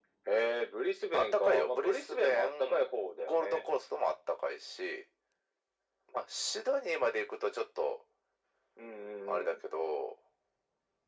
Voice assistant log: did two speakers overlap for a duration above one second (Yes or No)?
Yes